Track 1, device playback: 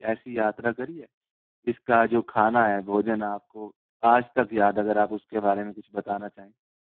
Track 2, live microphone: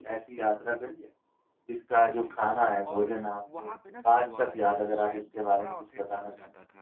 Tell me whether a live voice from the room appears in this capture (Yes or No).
Yes